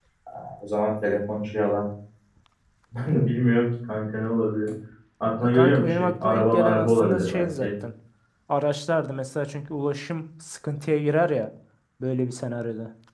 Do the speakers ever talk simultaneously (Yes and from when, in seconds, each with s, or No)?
Yes, from 5.4 s